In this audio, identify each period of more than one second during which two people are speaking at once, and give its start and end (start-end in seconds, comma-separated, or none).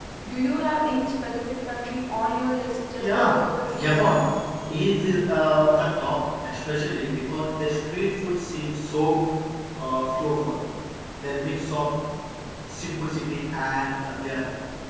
3.0-4.2